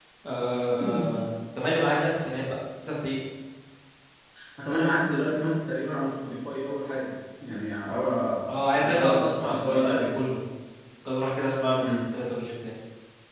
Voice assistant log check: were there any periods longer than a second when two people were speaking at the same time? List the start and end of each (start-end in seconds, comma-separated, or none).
8.7-10.1